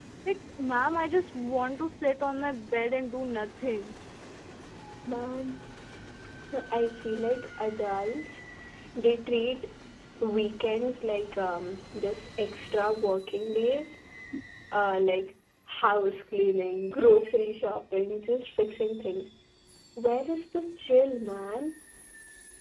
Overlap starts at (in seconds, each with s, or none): none